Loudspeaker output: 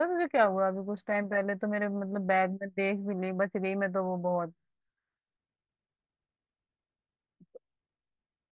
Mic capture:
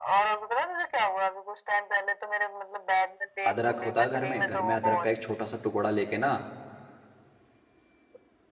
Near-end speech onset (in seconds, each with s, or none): 3.5 s